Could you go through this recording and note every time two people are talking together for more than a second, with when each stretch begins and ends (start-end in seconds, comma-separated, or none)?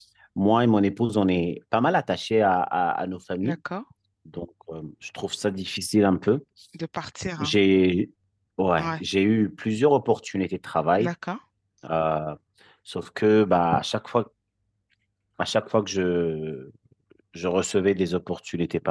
none